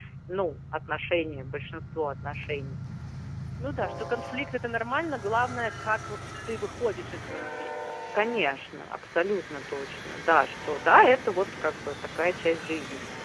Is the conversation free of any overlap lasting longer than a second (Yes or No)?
Yes